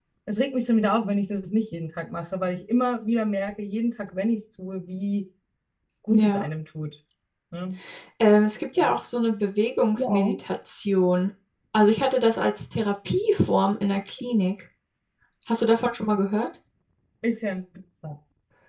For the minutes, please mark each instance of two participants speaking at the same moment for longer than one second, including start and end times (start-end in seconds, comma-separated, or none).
none